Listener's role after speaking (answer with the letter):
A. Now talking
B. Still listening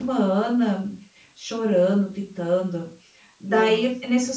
B